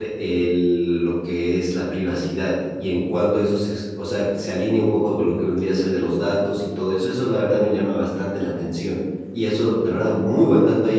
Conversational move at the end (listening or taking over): listening